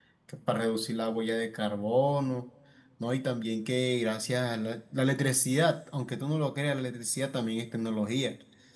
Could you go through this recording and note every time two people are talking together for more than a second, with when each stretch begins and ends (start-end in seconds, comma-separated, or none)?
none